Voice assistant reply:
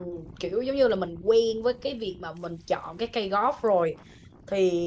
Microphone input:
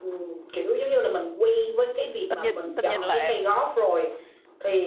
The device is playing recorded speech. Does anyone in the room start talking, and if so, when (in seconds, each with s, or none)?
2.2 s